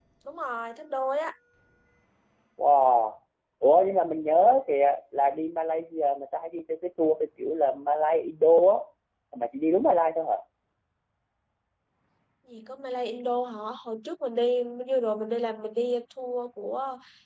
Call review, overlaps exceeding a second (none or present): none